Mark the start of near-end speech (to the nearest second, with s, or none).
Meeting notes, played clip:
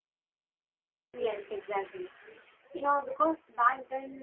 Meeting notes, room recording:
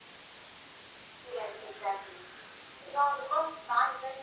none